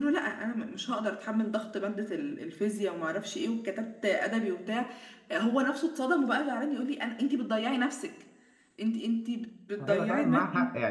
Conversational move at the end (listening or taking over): taking over